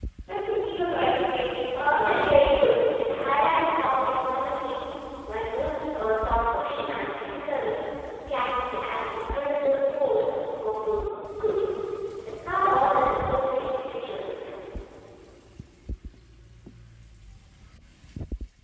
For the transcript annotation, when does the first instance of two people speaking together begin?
2 s

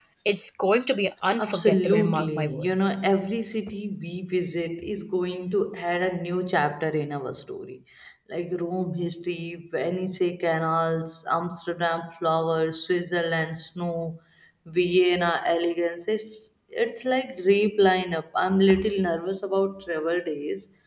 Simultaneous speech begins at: 1 s

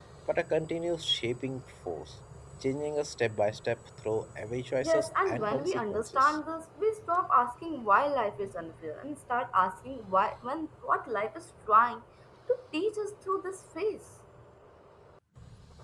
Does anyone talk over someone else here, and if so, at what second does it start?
5 s

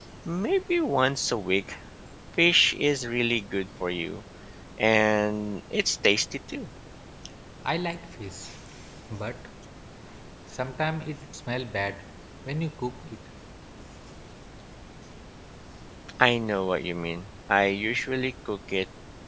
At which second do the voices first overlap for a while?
none

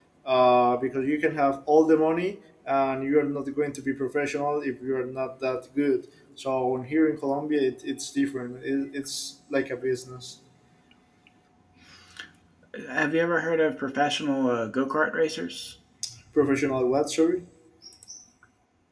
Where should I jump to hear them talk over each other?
none

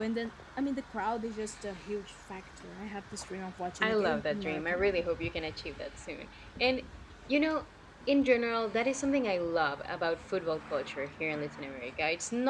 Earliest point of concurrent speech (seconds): 4 s

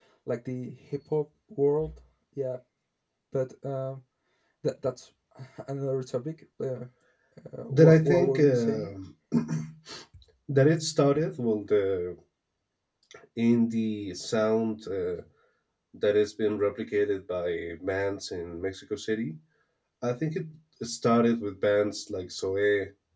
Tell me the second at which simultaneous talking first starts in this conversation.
8 s

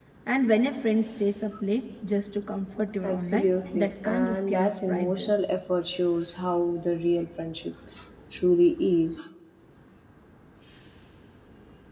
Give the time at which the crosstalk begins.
3 s

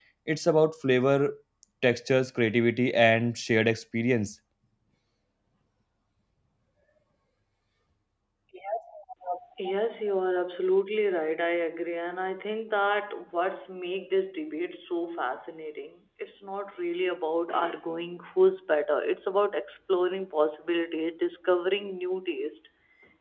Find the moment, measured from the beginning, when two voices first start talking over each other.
none

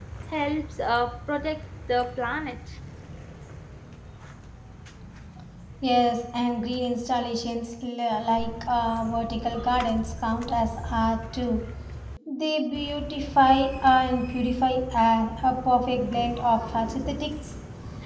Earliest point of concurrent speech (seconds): none

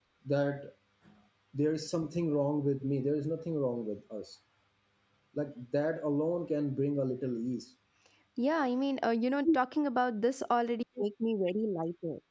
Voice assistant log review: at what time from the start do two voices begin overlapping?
none

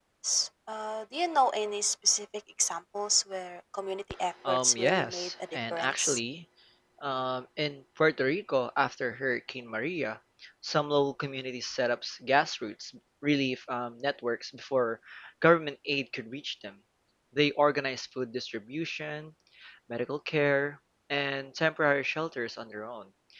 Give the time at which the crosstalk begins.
4 s

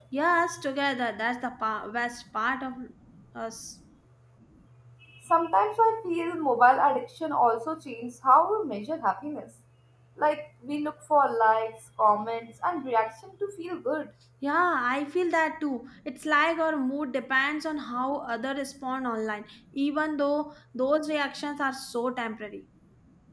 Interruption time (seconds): none

